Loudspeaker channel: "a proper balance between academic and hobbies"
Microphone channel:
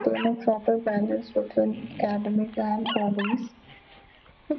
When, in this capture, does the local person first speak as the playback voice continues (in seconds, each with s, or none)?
none